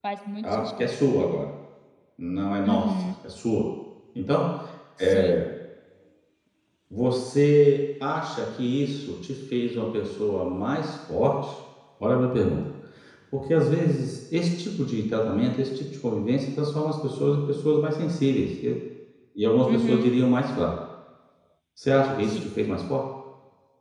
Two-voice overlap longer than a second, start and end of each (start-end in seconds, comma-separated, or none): none